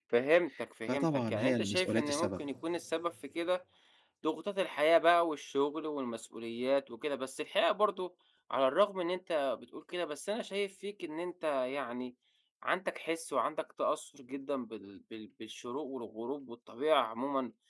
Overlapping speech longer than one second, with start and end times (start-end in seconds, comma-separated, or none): 0.9-2.4